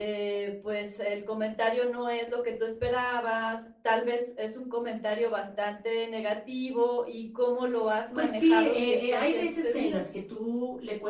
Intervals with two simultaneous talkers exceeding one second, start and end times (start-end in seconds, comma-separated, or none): 8.2-10.0